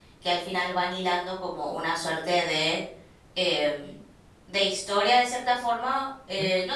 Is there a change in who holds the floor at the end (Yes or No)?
No